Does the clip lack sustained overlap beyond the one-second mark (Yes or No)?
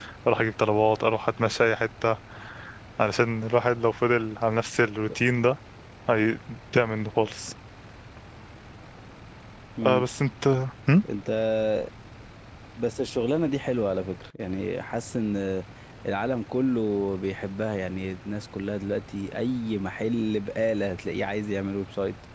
Yes